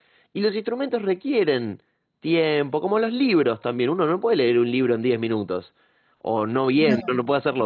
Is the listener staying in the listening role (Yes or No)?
Yes